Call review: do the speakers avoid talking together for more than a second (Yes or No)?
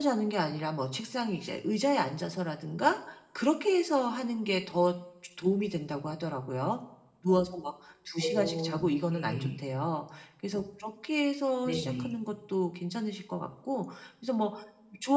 No